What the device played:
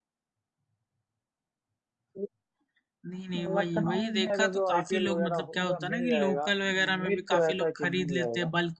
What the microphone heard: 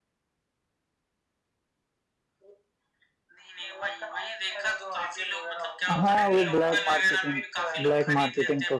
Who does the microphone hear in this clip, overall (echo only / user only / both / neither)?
both